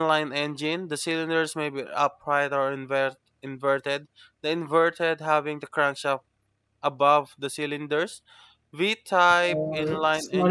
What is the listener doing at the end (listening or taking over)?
taking over